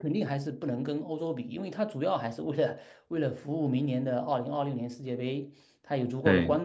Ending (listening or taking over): listening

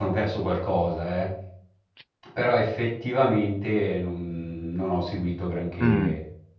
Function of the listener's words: taking over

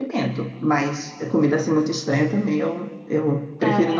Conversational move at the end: listening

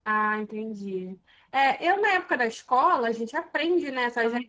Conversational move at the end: listening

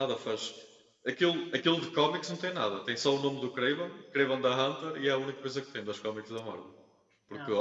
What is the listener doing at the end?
listening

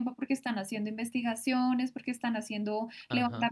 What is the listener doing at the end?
listening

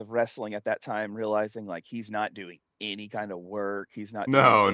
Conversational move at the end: taking over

